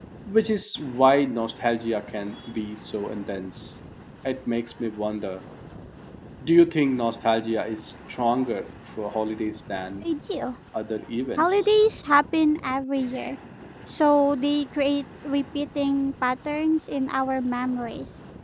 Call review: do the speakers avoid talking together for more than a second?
Yes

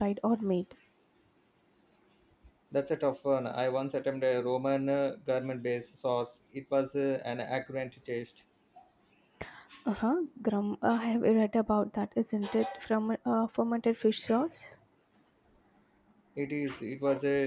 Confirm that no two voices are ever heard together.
Yes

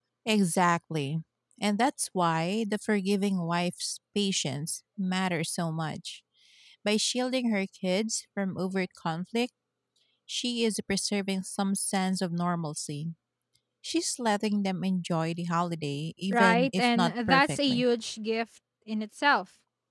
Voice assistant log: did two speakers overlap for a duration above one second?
Yes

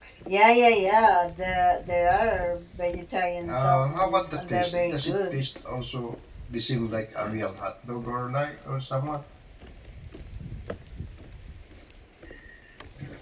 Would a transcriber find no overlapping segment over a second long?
No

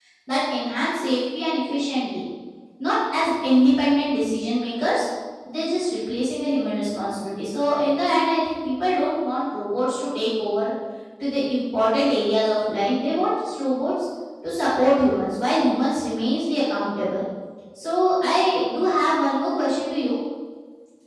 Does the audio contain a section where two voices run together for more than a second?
No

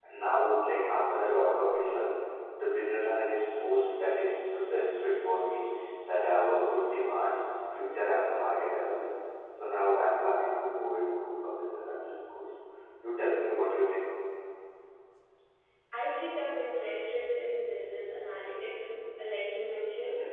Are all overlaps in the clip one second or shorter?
Yes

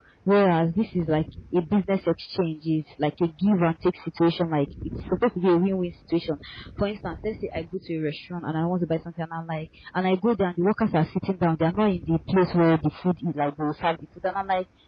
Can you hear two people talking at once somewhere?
No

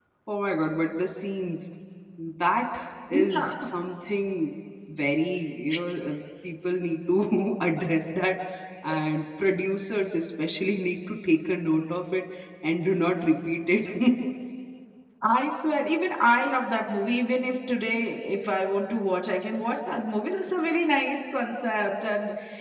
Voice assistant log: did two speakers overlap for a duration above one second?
No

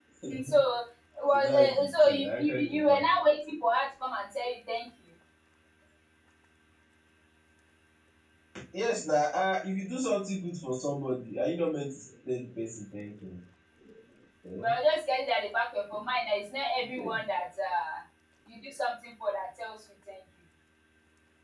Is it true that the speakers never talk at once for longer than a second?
No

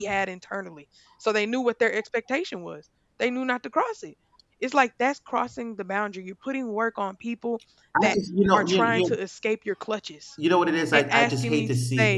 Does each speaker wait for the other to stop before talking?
No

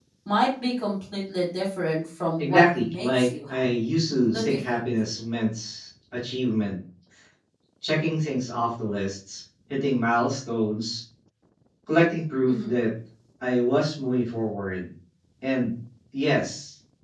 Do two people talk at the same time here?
Yes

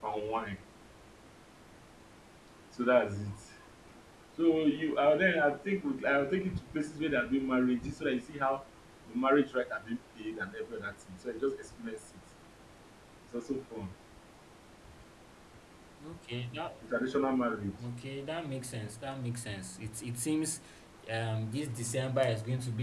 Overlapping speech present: No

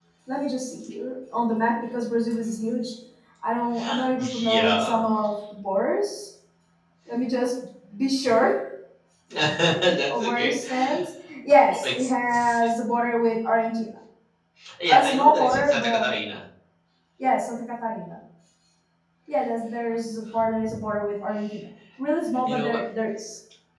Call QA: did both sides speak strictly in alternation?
No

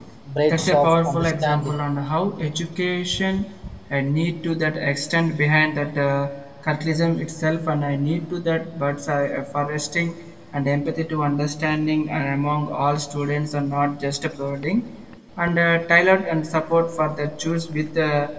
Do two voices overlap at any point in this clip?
Yes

